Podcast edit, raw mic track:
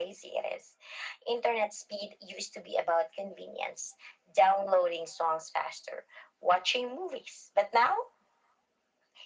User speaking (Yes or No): No